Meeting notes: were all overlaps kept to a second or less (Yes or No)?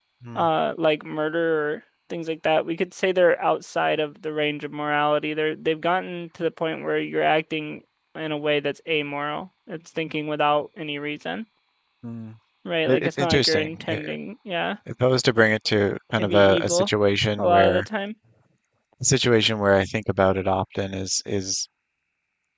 No